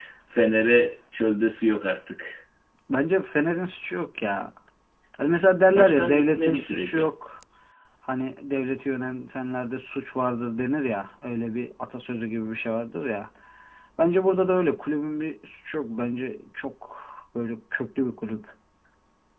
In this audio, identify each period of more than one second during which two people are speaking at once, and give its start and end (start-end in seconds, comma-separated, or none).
5.7-7.1